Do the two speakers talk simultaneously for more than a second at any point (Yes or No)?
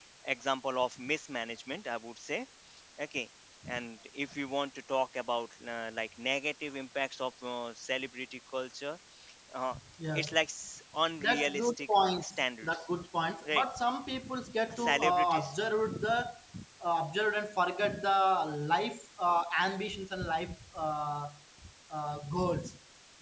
Yes